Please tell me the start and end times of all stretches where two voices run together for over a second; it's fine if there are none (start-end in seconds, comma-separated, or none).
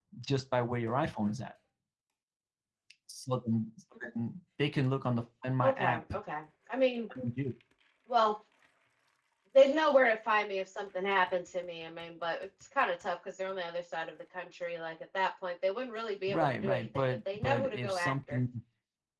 16.3-18.4